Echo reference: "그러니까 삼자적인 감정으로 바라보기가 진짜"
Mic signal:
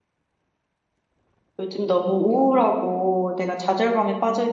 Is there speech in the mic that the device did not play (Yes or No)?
Yes